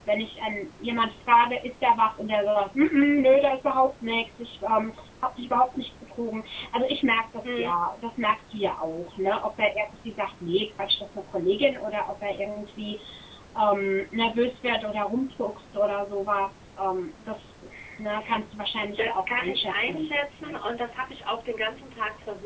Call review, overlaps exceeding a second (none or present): present